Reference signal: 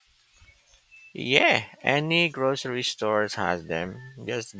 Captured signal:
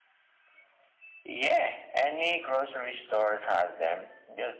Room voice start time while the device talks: none

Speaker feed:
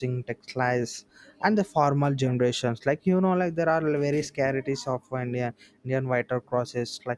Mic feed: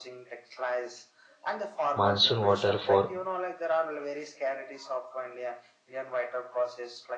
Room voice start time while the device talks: 2 s

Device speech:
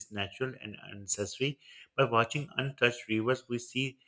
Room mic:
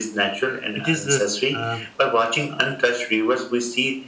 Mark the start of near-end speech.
1 s

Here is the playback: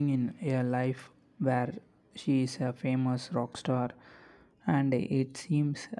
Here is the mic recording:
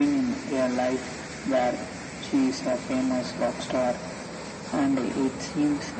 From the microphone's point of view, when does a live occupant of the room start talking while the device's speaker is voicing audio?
none

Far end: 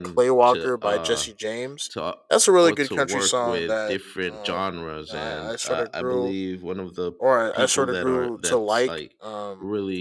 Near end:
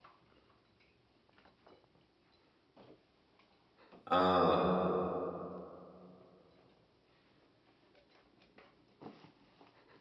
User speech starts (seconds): 4 s

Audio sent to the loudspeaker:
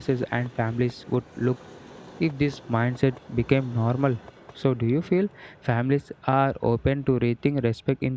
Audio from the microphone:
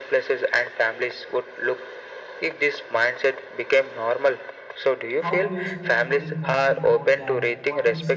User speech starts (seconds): 5 s

